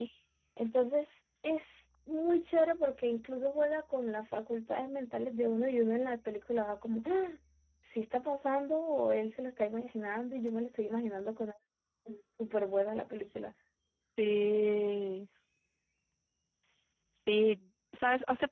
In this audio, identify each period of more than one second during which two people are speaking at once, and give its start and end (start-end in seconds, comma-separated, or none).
none